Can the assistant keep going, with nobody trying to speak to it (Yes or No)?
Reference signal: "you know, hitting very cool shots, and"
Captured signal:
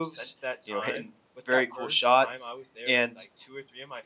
No